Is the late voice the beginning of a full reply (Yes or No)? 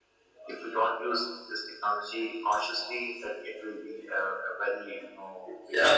Yes